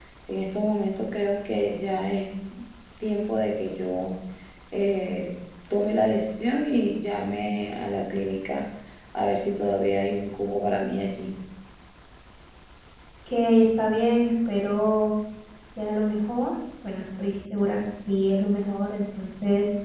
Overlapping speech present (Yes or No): No